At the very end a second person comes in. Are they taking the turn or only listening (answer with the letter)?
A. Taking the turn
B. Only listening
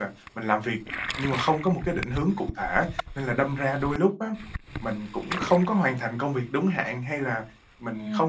B